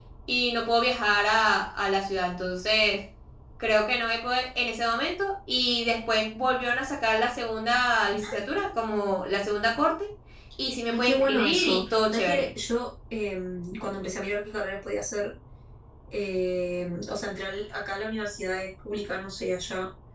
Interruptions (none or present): present